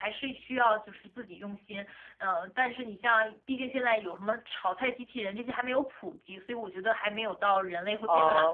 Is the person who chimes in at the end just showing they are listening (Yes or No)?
No